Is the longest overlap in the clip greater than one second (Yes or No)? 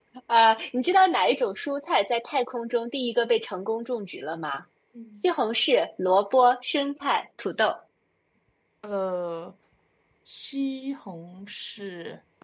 No